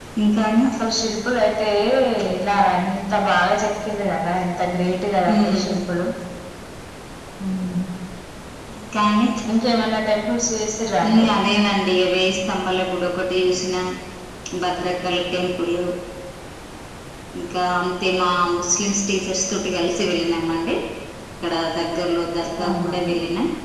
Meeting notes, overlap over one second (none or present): none